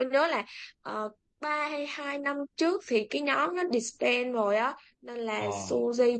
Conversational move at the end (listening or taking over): listening